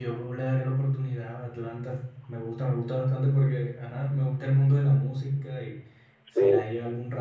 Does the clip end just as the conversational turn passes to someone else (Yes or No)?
No